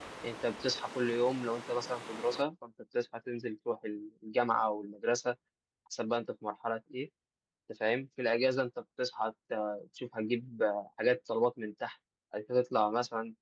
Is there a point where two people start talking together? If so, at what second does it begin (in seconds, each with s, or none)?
none